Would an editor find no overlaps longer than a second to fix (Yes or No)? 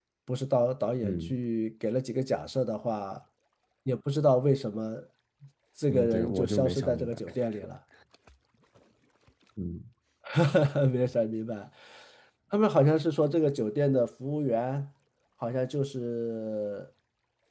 No